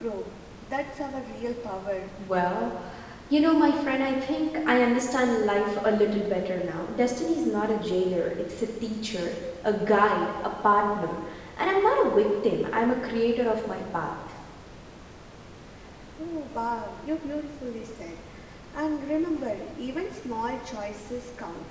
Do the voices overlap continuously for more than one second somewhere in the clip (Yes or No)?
No